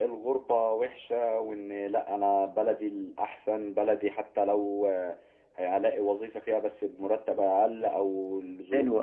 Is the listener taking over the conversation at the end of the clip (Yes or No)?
Yes